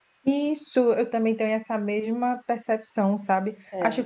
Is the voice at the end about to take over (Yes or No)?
No